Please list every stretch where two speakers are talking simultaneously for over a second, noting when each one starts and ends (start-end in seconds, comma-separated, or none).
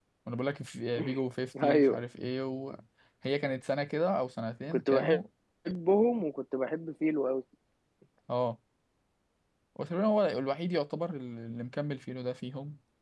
none